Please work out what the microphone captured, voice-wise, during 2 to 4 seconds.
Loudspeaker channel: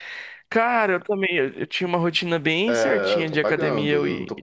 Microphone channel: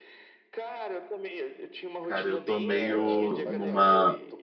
both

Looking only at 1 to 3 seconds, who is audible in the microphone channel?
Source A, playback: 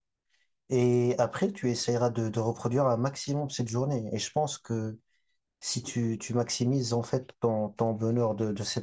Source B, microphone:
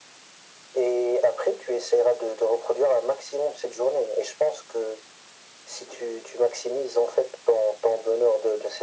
echo only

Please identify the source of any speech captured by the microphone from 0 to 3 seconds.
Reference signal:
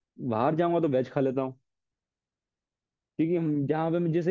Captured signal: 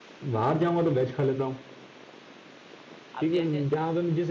echo only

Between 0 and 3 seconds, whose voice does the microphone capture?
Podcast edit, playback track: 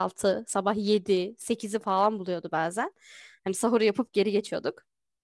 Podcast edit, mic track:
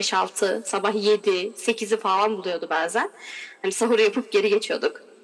echo only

